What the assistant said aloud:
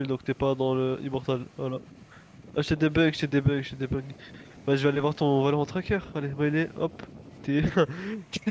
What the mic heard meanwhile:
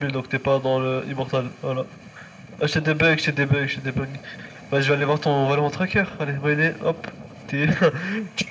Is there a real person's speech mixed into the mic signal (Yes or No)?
No